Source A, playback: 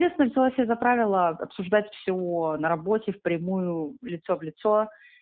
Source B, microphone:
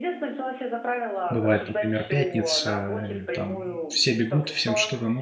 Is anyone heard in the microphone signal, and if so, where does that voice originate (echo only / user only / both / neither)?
both